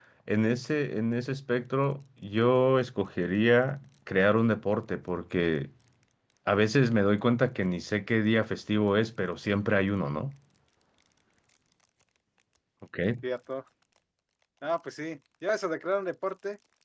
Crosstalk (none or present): none